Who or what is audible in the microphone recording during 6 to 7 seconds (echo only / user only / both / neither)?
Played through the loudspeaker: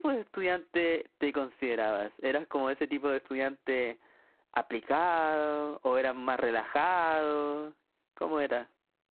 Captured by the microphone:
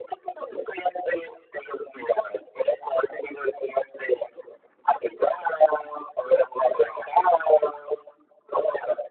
echo only